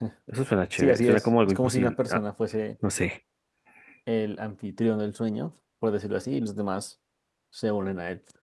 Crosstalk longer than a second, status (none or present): present